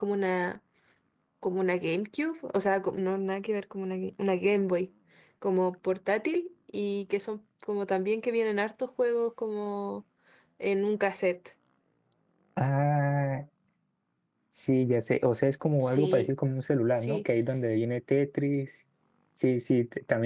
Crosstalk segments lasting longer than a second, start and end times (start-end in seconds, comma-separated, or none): none